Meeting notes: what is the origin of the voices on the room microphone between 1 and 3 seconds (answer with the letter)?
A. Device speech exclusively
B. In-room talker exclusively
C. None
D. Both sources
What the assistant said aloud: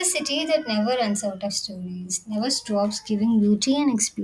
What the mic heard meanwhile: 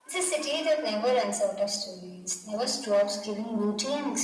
A